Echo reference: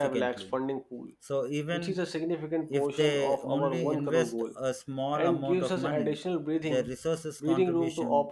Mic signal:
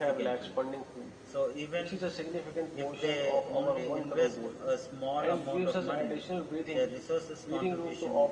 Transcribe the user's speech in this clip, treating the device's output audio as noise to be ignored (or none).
none